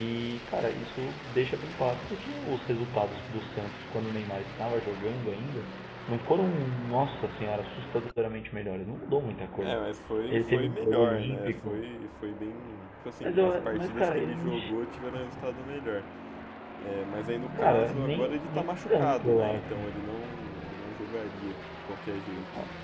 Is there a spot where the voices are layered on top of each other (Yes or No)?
Yes